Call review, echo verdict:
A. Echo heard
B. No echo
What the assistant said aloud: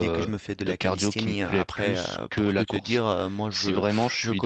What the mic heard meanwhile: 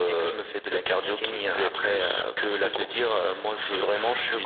A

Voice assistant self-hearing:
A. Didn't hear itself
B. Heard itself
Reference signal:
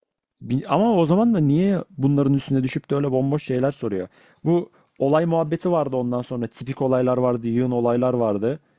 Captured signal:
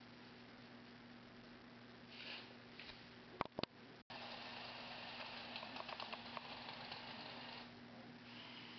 A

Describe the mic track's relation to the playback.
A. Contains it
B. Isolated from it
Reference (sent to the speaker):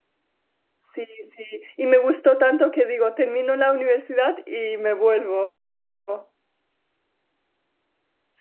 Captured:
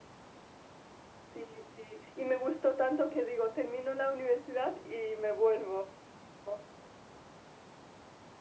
A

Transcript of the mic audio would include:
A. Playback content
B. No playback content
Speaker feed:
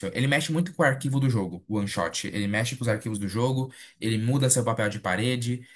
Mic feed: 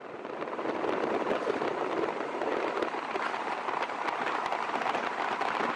B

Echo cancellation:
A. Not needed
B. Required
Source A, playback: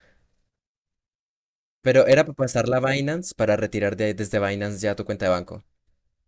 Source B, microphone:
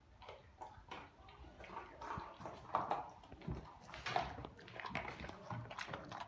A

